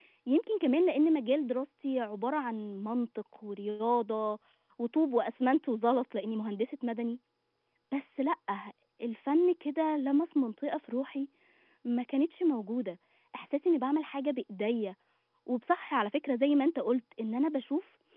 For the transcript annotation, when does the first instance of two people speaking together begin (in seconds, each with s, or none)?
none